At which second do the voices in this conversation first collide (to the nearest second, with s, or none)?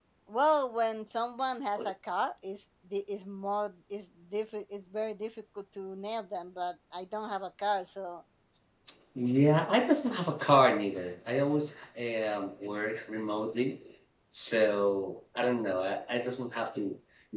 none